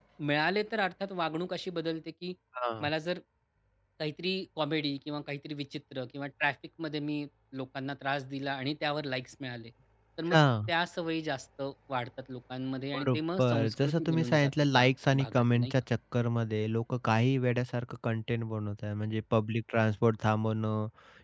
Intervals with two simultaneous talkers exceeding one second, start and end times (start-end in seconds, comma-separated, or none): 12.9-15.7